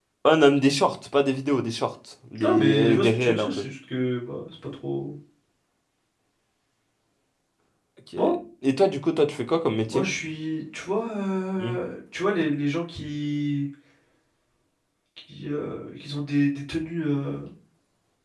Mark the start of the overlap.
2.4 s

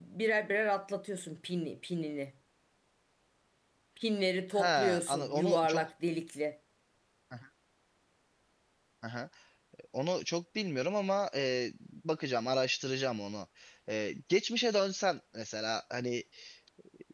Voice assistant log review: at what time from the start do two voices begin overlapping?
4.5 s

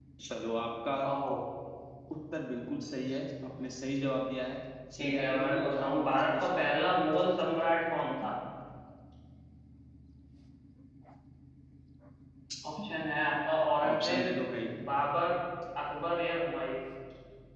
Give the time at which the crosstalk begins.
5.0 s

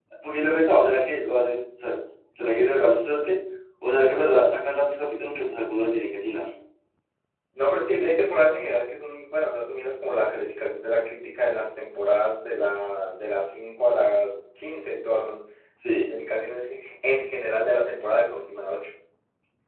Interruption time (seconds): none

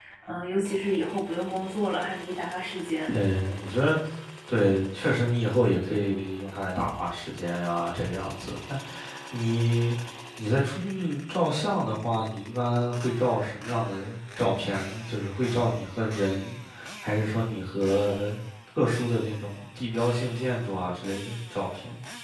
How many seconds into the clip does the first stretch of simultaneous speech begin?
none

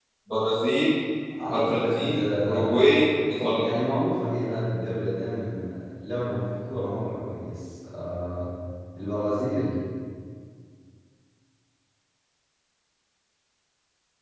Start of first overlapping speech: 1.5 s

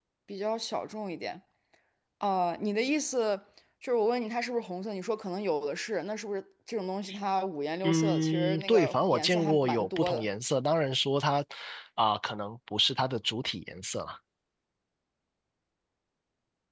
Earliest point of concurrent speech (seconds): 7.8 s

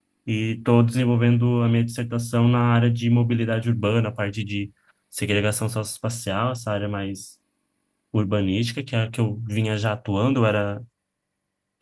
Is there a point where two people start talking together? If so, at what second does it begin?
none

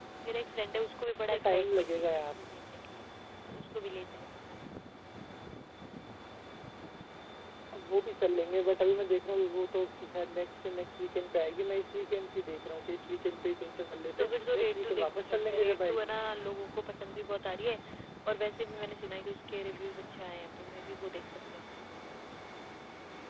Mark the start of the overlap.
1.1 s

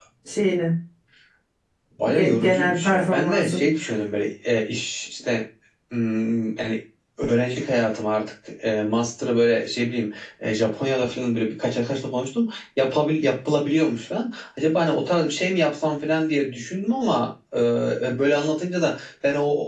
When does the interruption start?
2.0 s

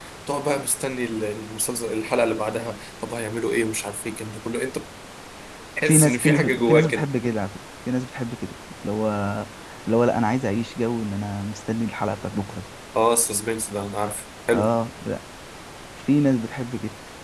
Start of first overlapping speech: 5.8 s

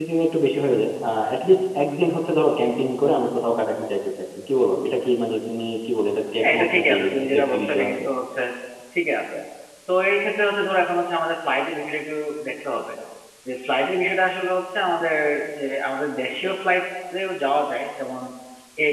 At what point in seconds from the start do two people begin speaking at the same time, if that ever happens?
6.4 s

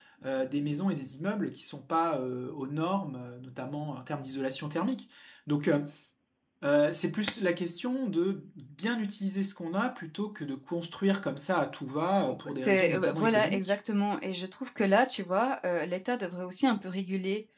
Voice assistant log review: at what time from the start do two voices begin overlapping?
12.3 s

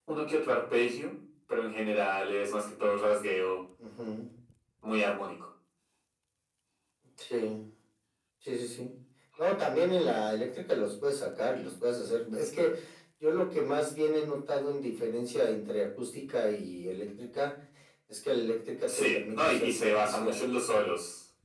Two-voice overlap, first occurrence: 18.9 s

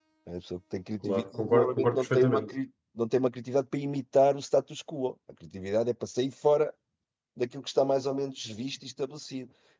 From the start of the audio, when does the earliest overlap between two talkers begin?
1.1 s

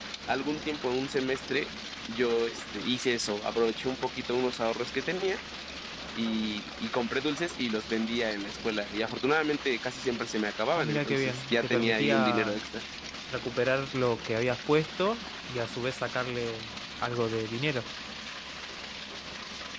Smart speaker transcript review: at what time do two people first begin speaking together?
10.7 s

